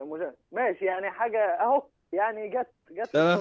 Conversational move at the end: taking over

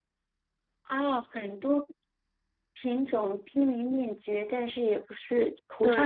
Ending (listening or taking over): taking over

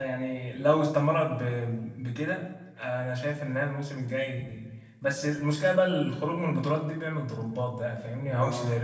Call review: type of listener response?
listening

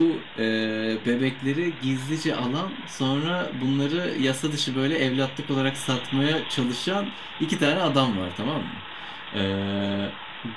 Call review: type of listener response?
listening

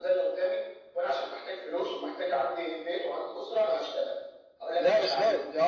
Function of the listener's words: taking over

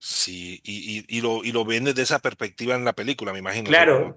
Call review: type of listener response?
taking over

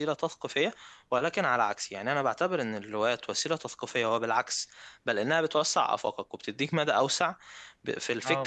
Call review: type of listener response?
listening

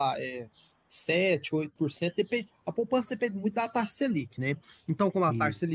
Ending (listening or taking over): listening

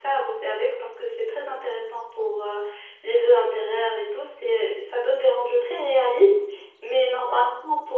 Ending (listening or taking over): listening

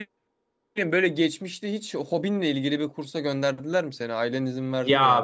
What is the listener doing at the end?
taking over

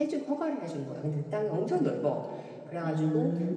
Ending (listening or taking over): listening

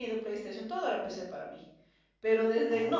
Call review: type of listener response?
listening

